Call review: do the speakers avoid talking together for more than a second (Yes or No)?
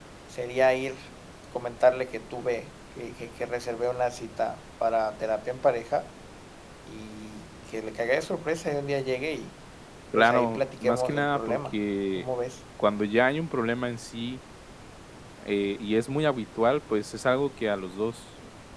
No